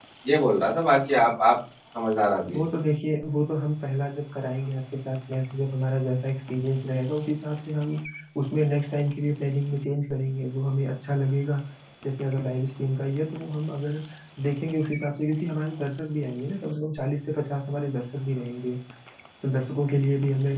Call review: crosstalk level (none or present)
none